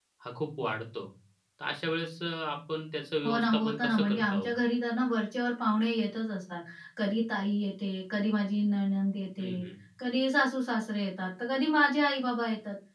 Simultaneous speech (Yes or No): Yes